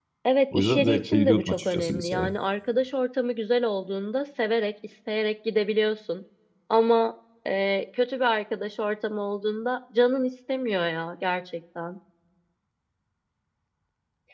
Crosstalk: present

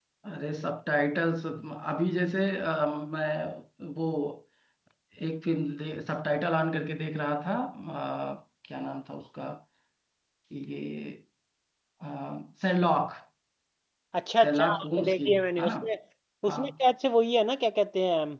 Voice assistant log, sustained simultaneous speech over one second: present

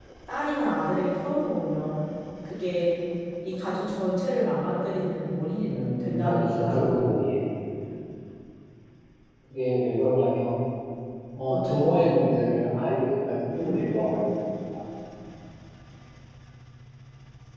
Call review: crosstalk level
present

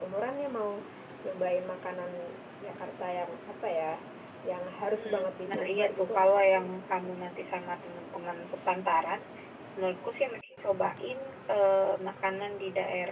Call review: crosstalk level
present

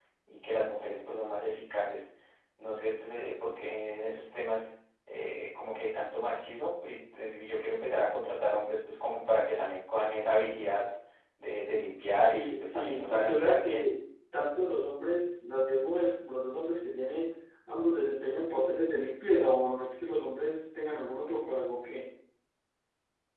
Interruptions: present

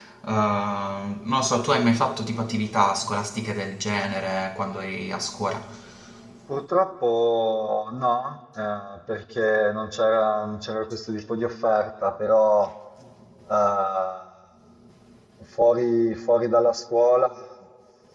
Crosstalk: none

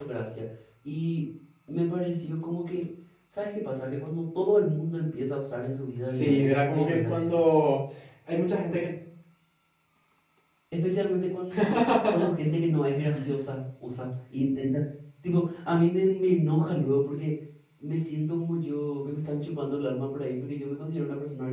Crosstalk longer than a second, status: present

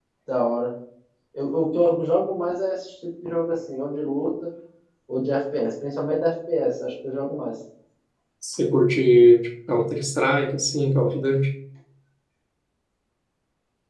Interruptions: none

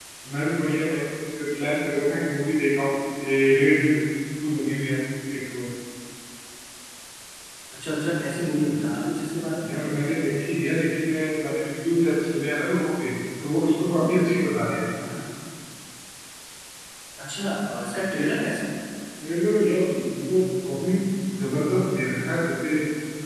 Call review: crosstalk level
none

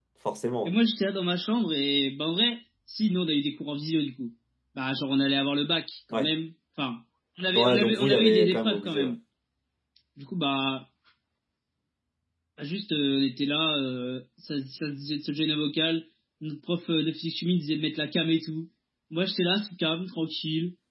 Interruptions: present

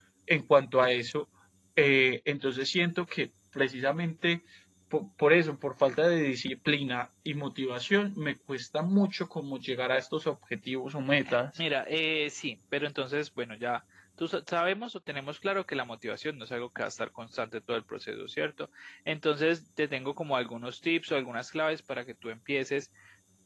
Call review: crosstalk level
none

